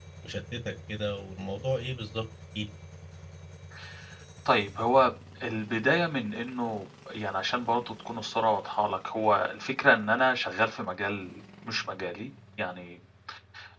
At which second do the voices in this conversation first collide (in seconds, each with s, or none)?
none